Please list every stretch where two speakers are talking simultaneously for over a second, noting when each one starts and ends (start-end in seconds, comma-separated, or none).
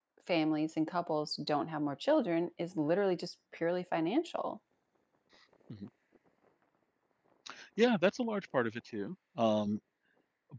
none